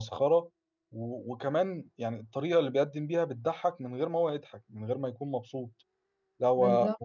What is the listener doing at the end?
listening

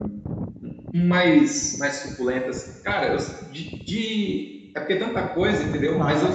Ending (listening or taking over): taking over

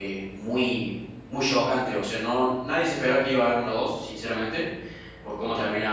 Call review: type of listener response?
listening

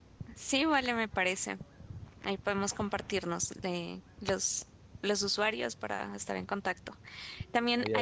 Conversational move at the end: listening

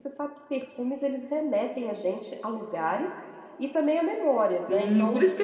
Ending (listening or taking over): taking over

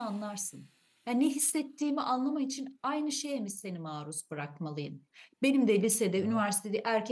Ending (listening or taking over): listening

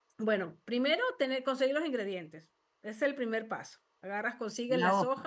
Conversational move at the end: listening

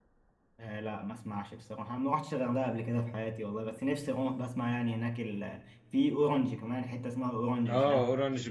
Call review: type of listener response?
taking over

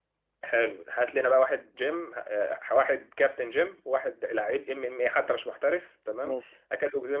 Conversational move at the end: listening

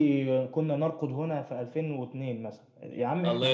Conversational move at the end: taking over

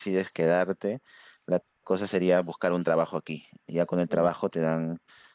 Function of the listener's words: listening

